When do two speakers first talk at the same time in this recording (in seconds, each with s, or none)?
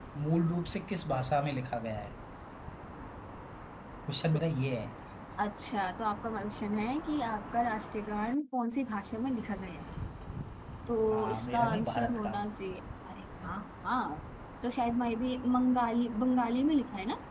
11.1 s